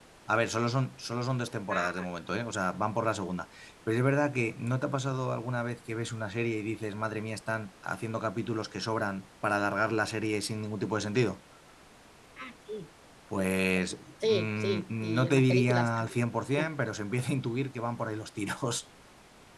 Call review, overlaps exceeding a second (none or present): present